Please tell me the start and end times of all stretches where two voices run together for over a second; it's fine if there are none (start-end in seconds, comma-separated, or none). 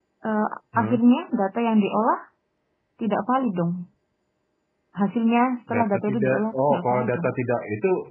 5.7-7.3